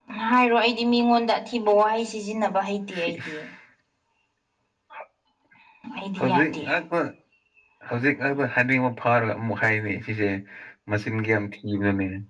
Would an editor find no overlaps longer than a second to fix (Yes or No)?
Yes